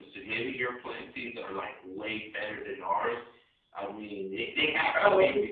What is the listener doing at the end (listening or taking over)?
listening